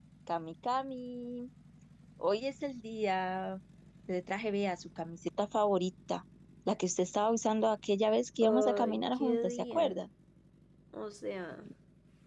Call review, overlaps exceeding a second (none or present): present